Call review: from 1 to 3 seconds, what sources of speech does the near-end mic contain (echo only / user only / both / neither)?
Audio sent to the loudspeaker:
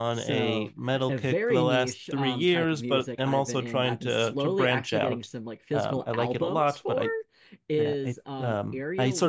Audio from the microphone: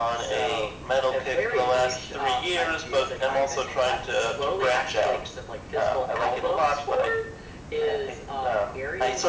echo only